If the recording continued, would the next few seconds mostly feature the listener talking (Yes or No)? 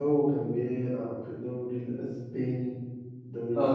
Yes